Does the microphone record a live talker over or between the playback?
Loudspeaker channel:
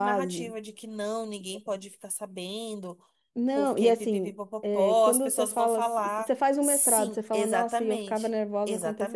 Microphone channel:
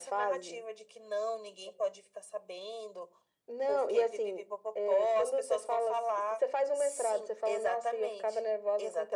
No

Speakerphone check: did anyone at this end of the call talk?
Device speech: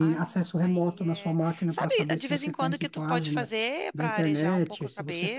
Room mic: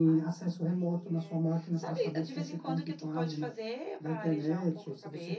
No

